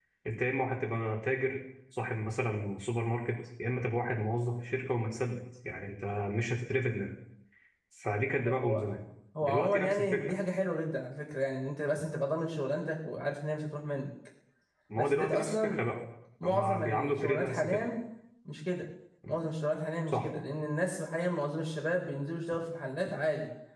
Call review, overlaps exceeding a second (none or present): present